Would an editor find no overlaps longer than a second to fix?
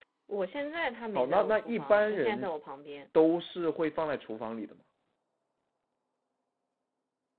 No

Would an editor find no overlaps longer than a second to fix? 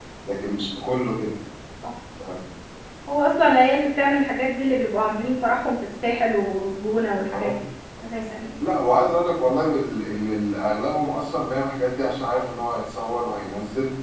Yes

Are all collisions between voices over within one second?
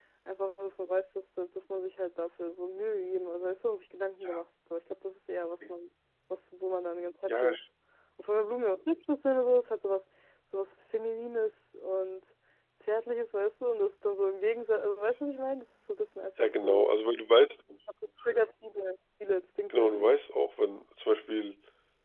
Yes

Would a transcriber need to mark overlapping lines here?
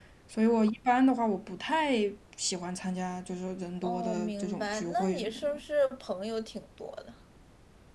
Yes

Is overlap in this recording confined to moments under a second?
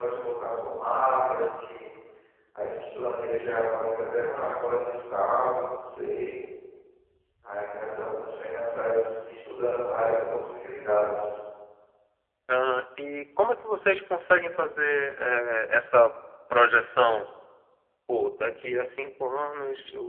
Yes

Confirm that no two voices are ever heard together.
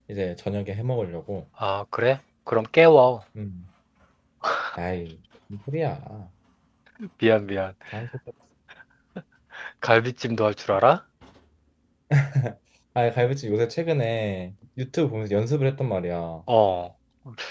Yes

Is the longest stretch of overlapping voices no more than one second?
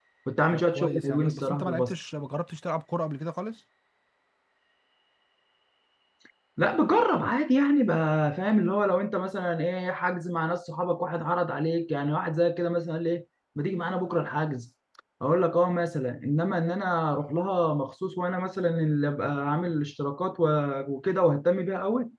No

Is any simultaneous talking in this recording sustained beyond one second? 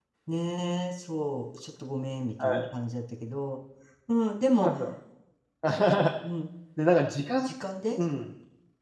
No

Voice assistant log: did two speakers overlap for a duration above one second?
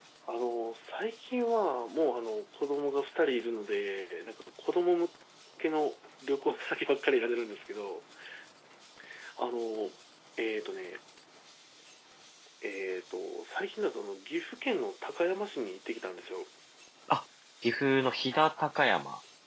No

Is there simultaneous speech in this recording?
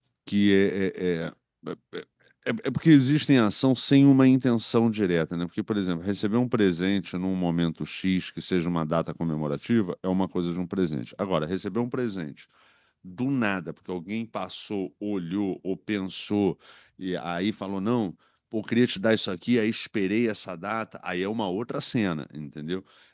No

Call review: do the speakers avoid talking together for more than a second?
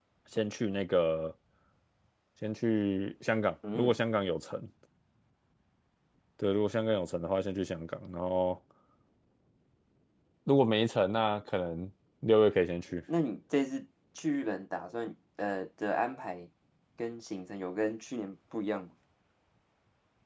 Yes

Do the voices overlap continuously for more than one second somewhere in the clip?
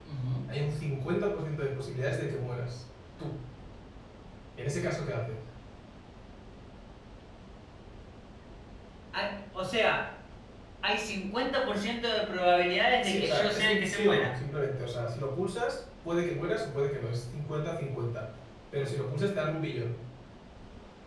Yes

